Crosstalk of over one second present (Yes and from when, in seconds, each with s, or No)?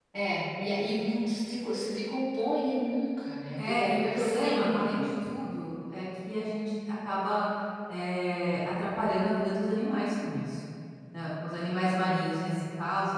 Yes, from 3.6 s